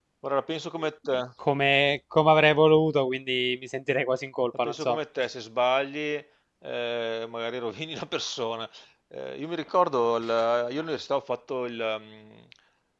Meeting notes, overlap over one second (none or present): none